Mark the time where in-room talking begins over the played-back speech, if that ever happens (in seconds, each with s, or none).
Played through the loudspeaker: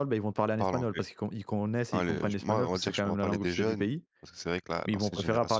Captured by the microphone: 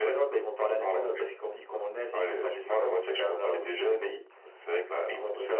none